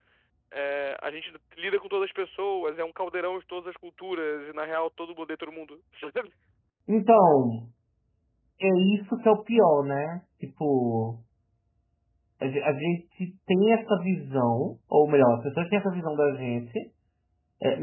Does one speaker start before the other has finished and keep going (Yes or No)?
No